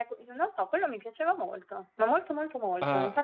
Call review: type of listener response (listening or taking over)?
taking over